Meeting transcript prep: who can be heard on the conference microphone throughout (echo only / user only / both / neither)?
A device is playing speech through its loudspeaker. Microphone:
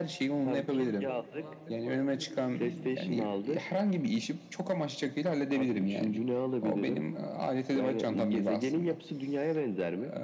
both